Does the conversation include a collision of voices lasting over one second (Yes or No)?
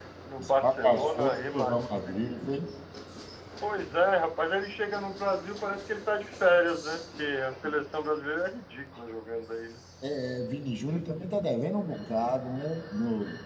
Yes